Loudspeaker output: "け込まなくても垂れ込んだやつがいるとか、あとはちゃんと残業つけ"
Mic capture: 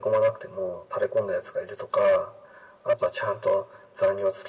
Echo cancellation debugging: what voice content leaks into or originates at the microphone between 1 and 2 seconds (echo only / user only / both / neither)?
echo only